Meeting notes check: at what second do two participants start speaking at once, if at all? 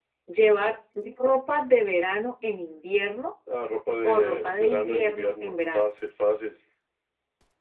4 s

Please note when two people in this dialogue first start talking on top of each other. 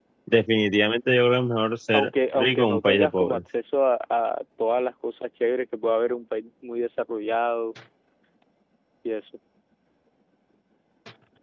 2 s

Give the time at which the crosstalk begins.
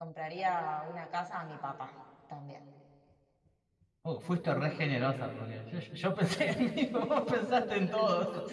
none

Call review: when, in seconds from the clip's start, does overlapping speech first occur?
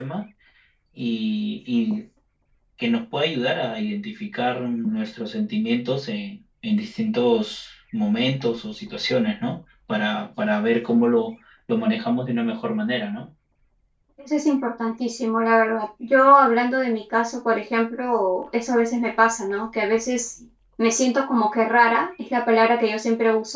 none

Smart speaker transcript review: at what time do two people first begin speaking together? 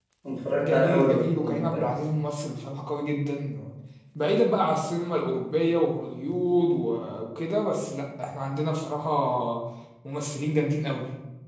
1 s

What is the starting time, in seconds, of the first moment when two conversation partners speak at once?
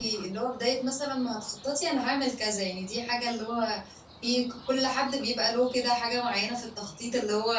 none

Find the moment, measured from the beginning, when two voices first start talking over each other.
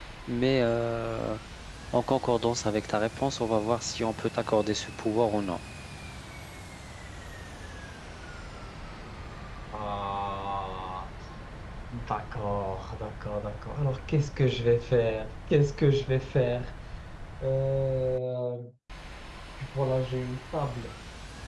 none

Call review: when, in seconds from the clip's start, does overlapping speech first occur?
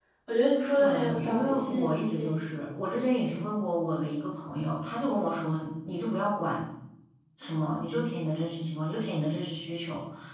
1 s

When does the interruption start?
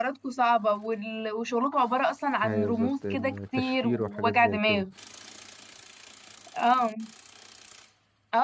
2 s

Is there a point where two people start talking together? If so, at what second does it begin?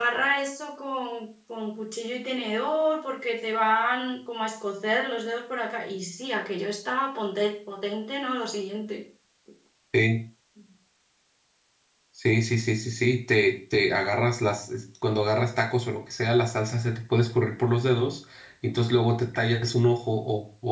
none

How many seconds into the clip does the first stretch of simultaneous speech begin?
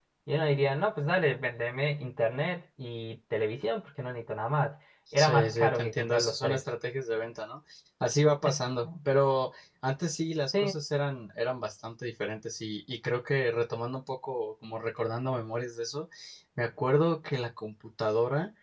5 s

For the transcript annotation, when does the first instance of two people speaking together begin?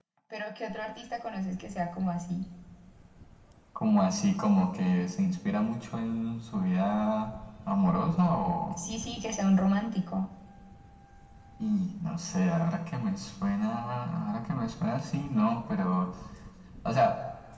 none

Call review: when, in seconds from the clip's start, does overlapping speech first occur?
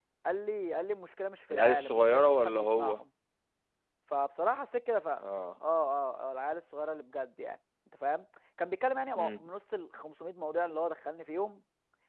2 s

